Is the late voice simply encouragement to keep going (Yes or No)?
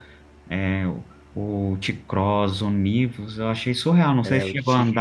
No